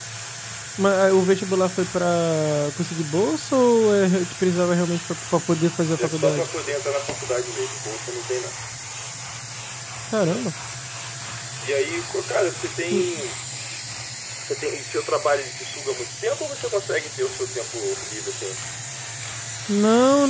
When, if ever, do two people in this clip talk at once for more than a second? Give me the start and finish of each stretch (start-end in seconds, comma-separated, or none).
none